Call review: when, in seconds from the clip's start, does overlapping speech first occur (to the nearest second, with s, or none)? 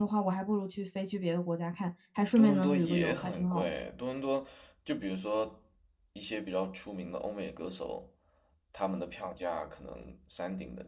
2 s